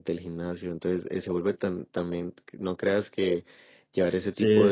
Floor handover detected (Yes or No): No